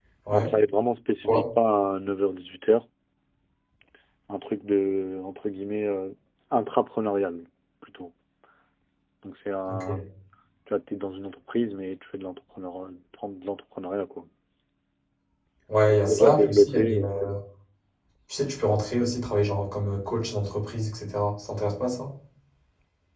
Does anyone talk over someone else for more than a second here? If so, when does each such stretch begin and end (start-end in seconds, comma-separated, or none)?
15.8-17.1